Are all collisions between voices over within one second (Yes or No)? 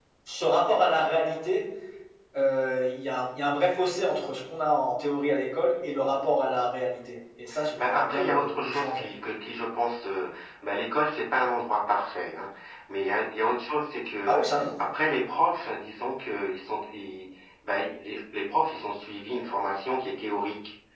No